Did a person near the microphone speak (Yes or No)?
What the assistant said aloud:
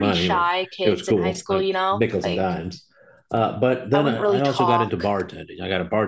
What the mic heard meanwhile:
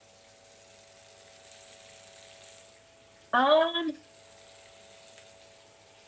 Yes